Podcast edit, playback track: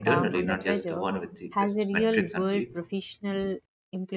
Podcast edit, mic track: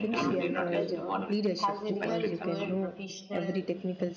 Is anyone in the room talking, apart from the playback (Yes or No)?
Yes